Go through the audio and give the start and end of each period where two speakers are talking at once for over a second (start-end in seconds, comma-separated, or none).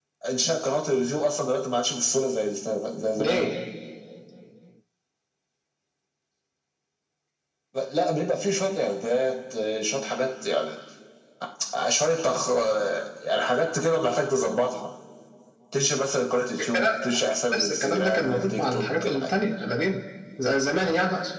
17.5-19.3